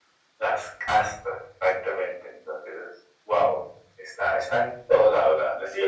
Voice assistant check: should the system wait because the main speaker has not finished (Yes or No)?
No